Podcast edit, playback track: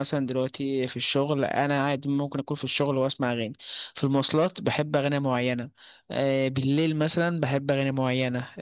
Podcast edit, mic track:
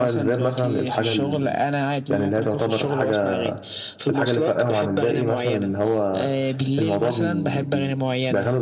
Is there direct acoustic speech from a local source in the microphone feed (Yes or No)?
Yes